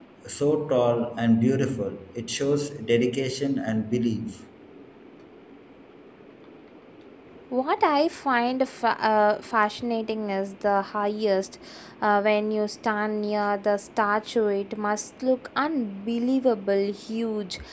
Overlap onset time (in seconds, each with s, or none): none